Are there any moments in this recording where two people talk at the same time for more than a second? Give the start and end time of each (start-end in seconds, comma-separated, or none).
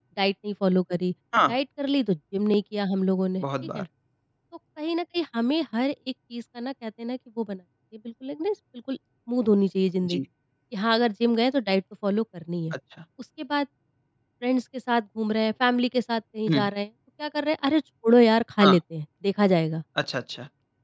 none